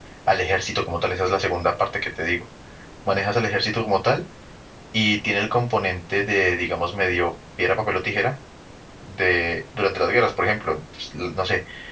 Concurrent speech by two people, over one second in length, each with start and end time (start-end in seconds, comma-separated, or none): none